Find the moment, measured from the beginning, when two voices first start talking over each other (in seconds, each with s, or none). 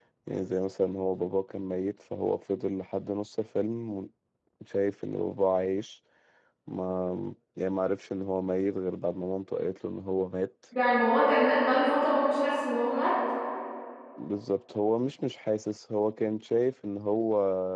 none